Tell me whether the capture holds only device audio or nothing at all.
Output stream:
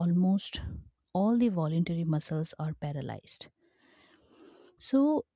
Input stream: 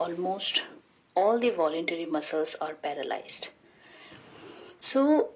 Yes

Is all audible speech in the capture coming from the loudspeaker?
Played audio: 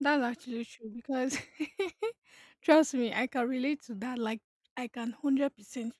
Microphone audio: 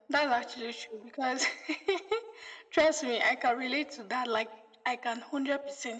Yes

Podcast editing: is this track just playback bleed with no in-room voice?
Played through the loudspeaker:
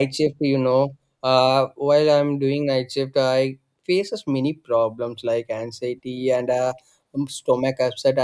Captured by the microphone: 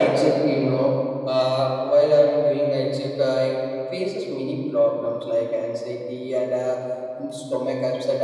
Yes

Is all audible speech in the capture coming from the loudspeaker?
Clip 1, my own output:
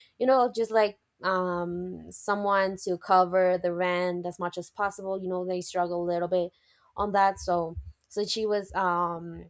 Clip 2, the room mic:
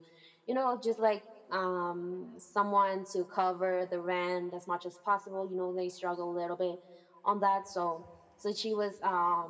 Yes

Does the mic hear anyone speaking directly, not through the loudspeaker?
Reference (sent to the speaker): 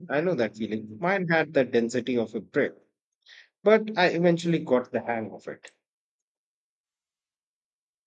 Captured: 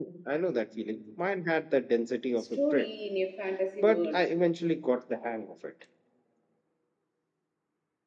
Yes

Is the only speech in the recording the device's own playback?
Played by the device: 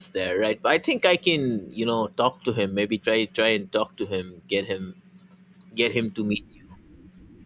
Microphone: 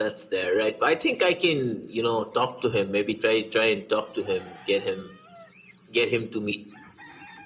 Yes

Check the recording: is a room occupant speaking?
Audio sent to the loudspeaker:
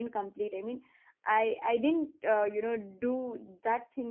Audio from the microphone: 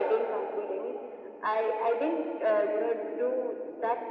No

